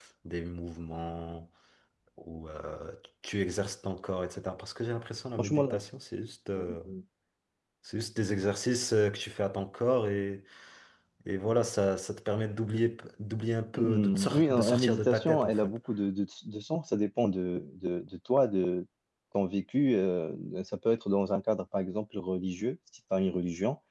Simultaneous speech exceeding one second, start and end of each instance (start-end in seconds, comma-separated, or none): 13.7-15.8